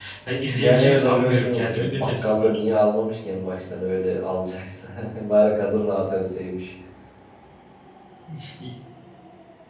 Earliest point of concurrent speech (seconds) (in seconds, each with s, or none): 0.5 s